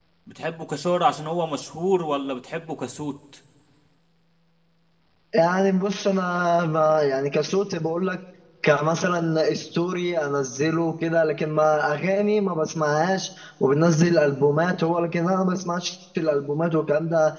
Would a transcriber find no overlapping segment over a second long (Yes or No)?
Yes